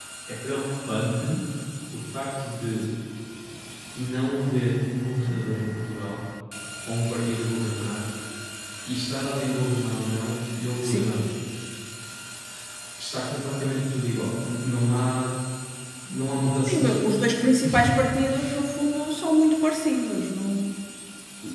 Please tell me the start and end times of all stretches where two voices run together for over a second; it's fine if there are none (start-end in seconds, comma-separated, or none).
none